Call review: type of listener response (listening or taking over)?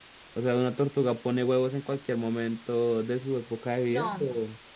taking over